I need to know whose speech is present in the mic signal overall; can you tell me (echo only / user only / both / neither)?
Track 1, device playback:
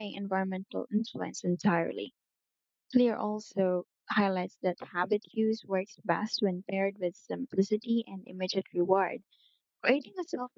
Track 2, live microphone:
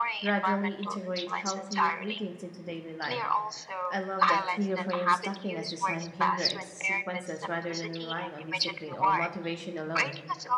both